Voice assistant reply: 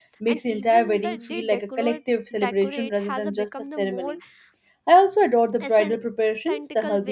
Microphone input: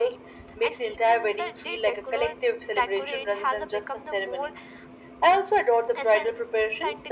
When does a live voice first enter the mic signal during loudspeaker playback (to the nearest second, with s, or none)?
none